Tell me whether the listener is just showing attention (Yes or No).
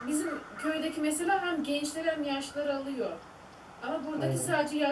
Yes